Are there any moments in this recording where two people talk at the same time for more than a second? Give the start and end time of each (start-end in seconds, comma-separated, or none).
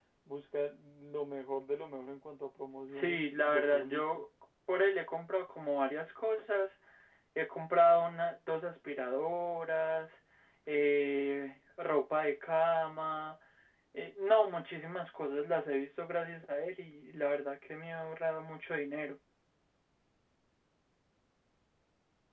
2.9-4.2